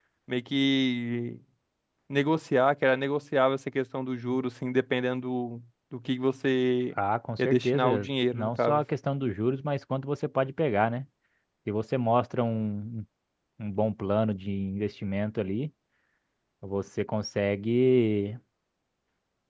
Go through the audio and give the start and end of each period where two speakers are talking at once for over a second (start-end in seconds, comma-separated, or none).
7.4-8.8